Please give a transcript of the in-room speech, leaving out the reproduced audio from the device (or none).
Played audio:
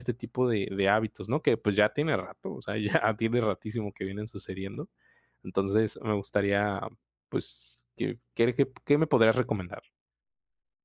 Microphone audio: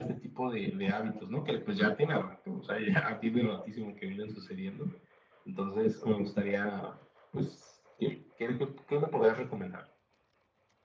none